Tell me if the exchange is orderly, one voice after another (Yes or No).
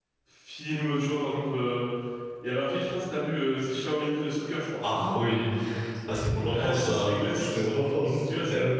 No